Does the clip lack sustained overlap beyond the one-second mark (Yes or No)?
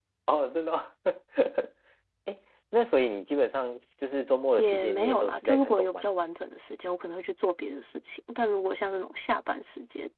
No